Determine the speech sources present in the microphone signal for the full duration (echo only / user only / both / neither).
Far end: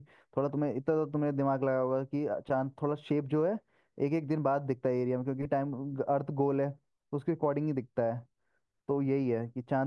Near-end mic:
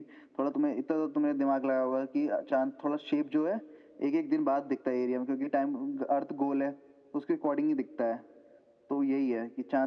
echo only